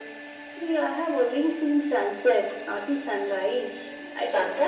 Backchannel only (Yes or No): No